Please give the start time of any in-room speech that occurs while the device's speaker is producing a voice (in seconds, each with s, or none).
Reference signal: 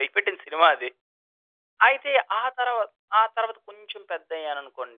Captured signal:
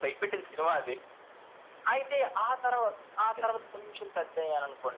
3.2 s